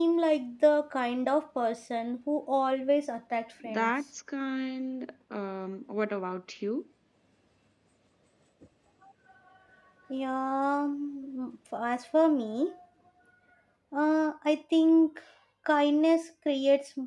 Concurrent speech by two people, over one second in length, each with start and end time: none

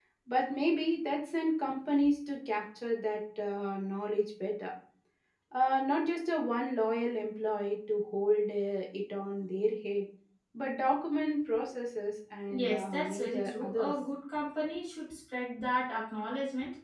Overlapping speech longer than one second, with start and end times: 12.5-13.9

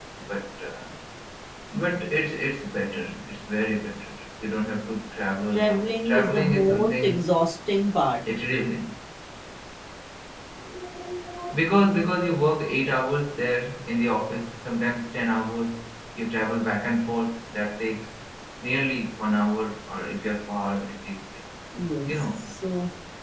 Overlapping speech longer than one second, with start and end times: 5.5-7.2

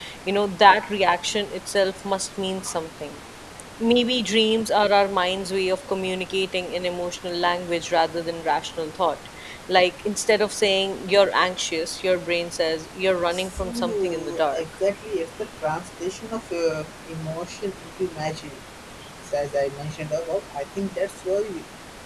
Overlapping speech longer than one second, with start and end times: 13.3-14.6

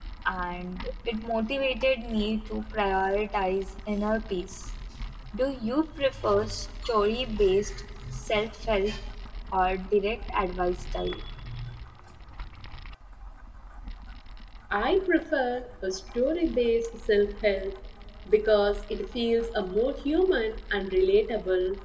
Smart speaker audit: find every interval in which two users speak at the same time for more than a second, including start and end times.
none

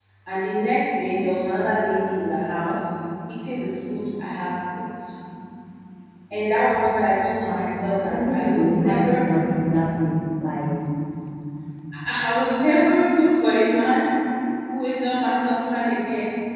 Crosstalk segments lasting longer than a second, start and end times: 7.5-9.3

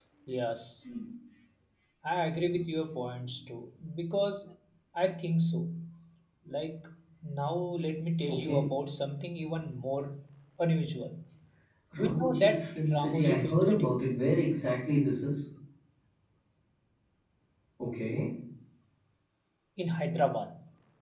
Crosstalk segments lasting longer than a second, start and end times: 12.0-14.0

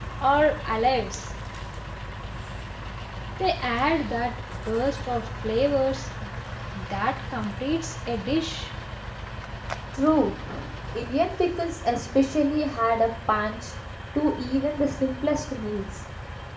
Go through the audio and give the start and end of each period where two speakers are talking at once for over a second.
none

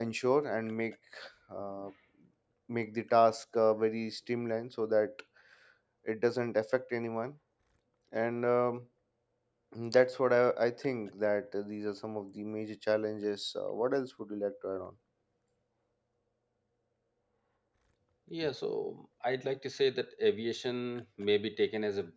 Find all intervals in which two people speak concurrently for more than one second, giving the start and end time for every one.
none

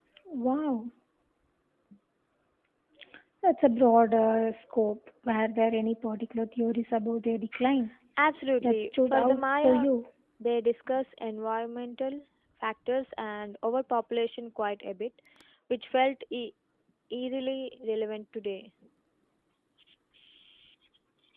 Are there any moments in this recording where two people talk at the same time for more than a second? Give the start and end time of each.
8.6-9.9

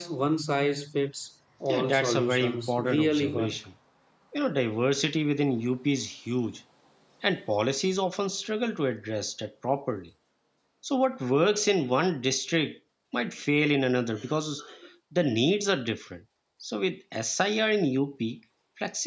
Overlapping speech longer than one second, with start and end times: 1.7-3.5

